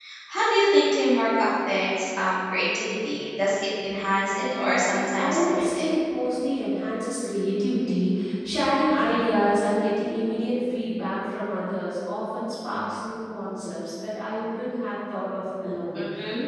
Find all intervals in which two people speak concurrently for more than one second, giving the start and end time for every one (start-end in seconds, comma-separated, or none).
4.5-5.9